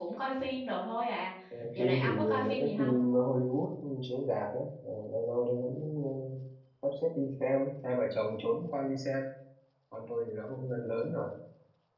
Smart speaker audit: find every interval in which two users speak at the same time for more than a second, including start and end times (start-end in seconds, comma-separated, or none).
1.8-3.0